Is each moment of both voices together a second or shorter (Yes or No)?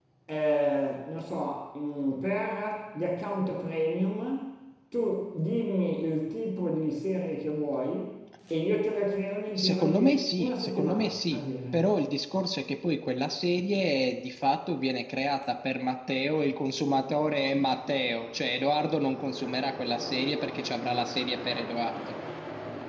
No